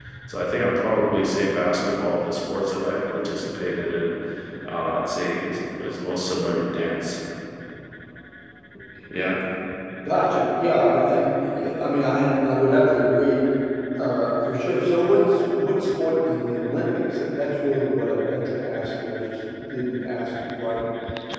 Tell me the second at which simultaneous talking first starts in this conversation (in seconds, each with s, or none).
none